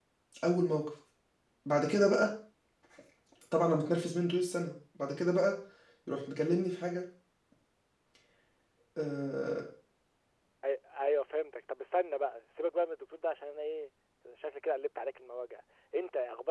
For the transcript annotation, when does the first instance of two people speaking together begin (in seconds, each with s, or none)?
none